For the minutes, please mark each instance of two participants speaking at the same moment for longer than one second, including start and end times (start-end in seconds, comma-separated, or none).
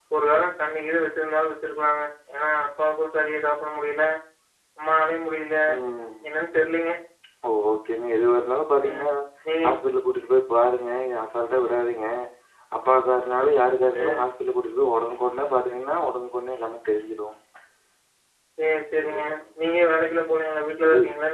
none